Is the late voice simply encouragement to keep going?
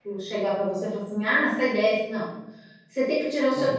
Yes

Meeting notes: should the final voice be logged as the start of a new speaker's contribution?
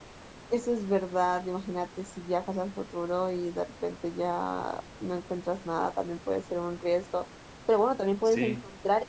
No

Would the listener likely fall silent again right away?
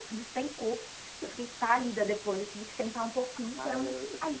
No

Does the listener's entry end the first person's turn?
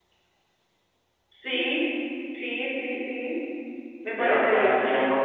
Yes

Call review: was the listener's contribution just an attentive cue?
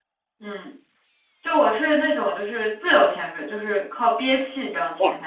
No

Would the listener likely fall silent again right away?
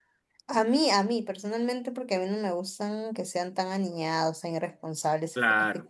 Yes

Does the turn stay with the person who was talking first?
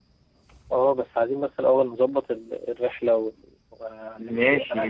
No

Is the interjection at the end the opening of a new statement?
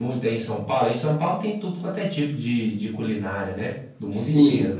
Yes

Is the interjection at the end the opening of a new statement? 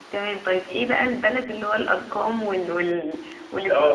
Yes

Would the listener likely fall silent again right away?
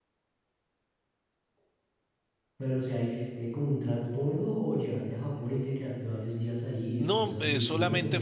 No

